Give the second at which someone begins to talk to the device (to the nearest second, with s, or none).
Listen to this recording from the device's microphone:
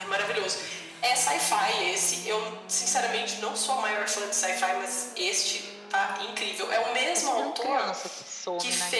7 s